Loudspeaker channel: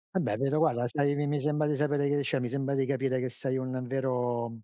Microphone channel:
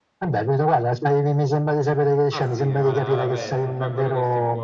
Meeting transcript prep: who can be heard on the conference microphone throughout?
both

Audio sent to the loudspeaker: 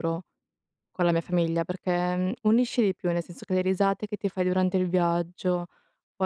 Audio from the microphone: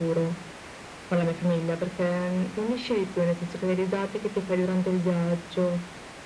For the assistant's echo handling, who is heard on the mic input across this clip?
echo only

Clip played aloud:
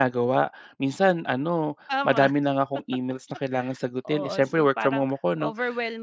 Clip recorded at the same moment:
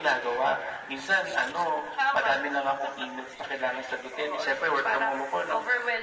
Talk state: echo only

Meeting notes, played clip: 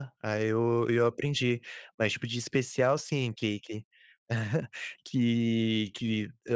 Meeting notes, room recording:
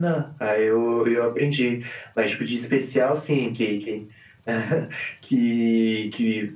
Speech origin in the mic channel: echo only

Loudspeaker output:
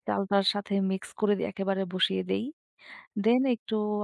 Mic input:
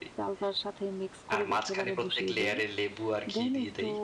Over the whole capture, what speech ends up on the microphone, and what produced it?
both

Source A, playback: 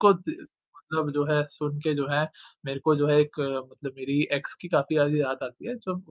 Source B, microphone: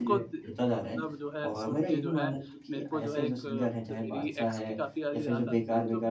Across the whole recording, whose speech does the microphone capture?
both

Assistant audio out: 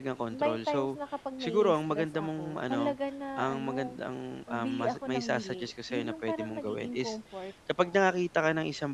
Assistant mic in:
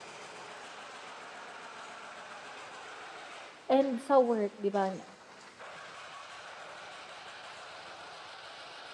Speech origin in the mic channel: user only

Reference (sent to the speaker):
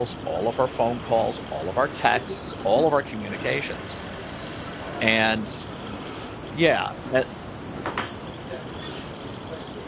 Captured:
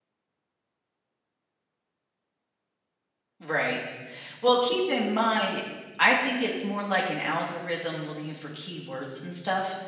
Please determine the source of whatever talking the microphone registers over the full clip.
user only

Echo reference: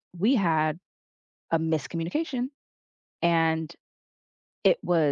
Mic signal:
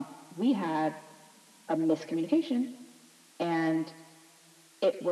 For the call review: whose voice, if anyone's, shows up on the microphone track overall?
echo only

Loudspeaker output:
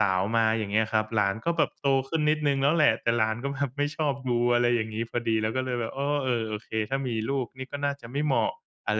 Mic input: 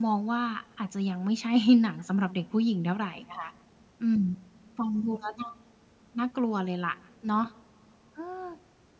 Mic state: user only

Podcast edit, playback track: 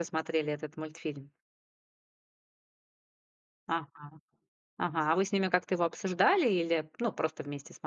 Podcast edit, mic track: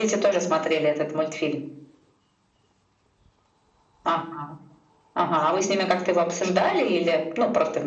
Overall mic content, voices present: echo only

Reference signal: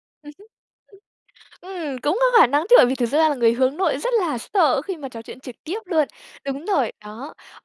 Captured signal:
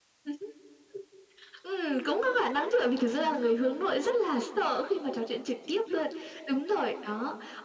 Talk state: echo only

